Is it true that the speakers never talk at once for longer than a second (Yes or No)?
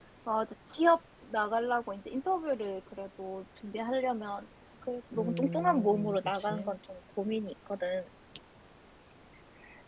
No